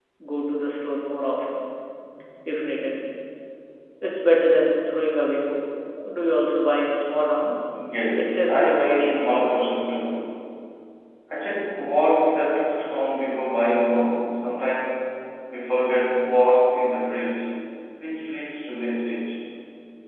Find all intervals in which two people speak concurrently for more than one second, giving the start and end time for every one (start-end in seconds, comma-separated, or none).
8.2-9.4